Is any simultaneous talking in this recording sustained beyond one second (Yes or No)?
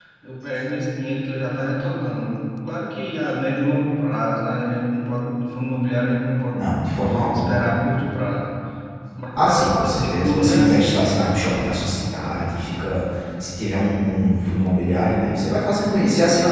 Yes